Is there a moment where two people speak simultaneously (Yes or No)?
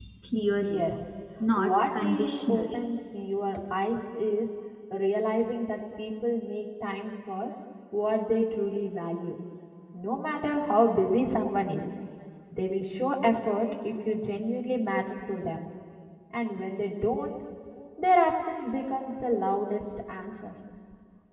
Yes